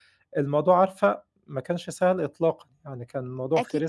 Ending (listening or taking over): taking over